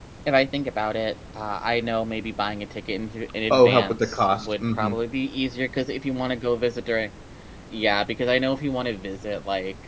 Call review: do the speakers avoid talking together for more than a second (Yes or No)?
No